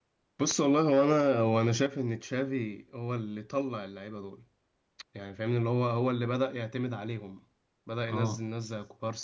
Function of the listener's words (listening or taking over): listening